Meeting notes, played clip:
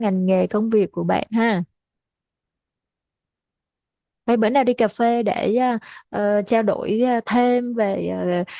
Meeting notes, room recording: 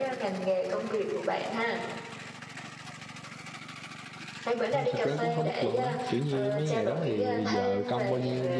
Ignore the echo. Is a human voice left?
Yes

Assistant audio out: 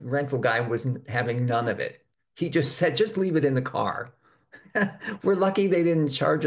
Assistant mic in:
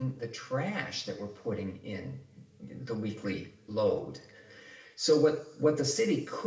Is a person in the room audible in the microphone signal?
Yes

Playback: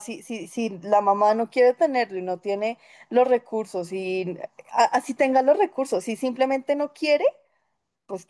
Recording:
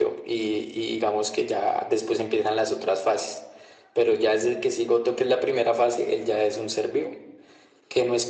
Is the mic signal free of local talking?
No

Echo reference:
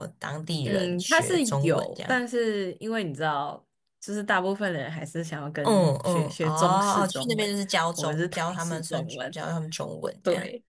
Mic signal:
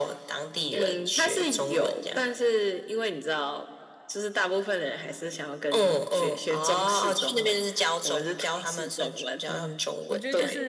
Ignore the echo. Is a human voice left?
Yes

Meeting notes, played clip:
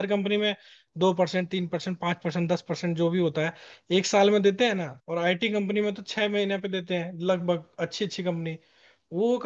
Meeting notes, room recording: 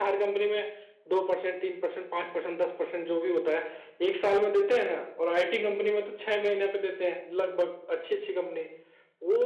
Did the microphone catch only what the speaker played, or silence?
Yes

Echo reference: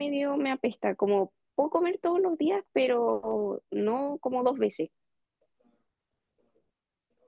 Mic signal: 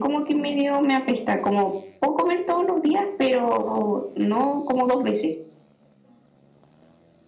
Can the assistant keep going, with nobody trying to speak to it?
Yes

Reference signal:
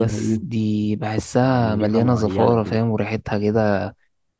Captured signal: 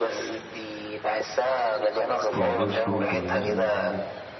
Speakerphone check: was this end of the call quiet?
No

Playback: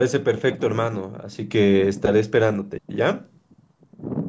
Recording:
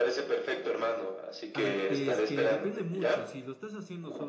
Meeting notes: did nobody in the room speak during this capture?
No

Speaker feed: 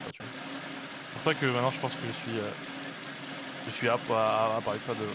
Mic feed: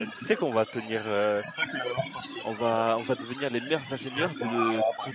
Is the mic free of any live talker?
No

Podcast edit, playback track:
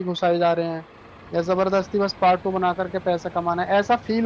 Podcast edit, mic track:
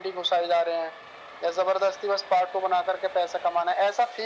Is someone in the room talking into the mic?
No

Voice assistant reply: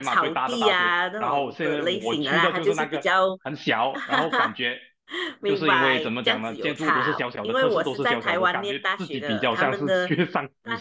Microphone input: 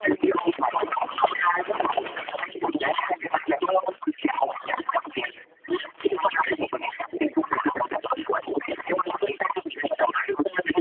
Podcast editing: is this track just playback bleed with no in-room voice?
Yes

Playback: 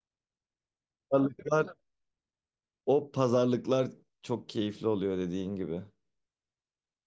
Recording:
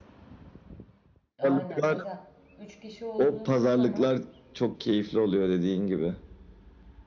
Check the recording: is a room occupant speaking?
Yes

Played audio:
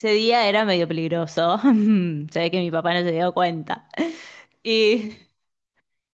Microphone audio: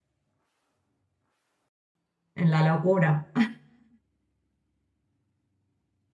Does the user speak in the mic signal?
Yes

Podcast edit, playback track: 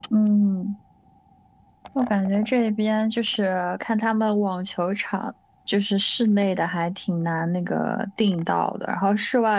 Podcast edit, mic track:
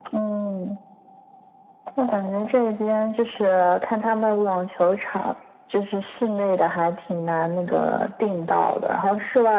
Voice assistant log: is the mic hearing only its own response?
Yes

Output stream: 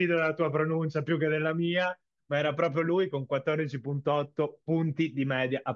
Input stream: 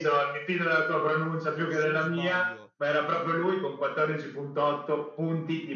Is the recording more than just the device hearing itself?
Yes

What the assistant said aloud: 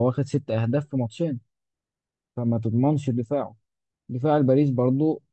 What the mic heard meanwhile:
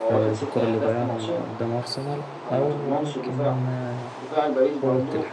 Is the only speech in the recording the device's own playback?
No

